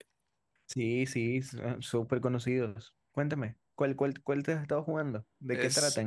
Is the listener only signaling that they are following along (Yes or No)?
No